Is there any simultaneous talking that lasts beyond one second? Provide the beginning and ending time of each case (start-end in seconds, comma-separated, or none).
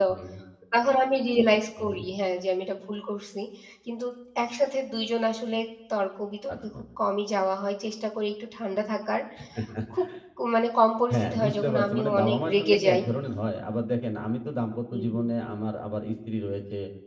11.1-13.0